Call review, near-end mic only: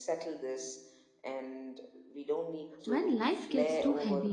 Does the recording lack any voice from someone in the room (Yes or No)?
No